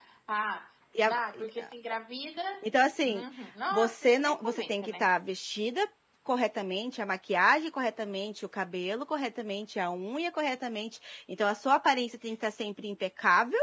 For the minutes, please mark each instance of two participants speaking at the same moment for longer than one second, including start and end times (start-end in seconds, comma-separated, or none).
3.7-5.0